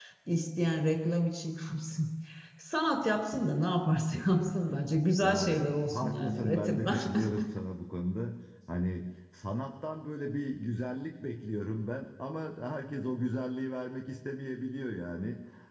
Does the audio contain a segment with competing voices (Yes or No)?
Yes